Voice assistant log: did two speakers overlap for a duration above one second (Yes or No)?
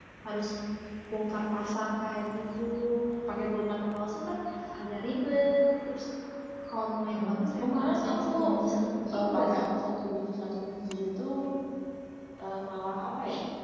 Yes